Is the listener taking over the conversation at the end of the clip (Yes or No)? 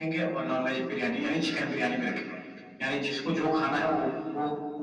No